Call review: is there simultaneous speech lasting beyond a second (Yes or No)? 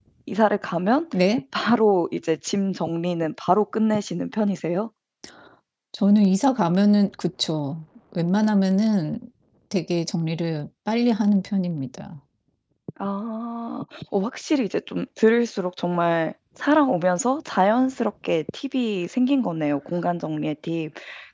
No